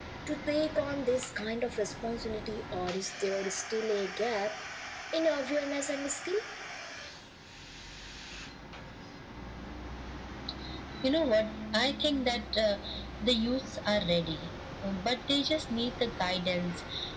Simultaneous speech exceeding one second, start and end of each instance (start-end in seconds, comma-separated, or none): none